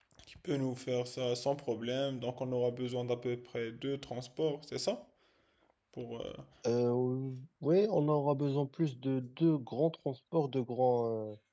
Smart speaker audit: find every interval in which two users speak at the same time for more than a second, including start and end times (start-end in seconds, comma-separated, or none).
none